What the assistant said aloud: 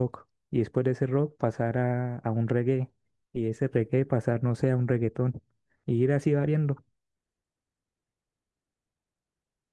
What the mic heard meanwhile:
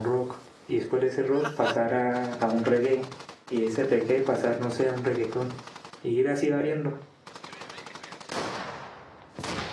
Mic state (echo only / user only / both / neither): echo only